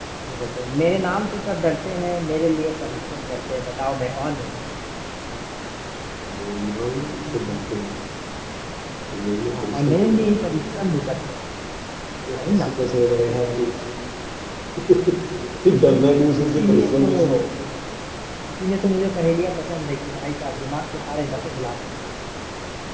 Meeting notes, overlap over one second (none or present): present